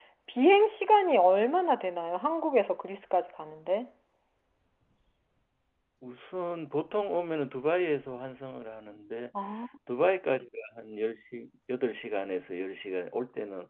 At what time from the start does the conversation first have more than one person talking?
none

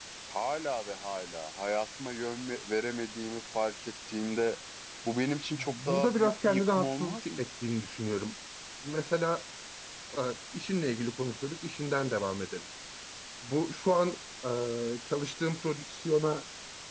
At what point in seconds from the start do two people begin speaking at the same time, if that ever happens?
5.5 s

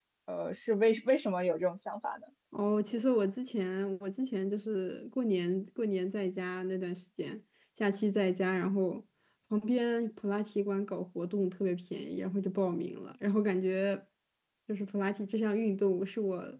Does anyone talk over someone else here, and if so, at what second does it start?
none

